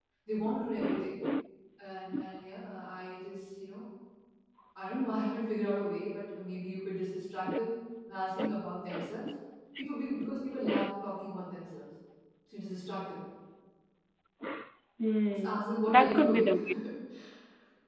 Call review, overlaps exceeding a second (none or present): present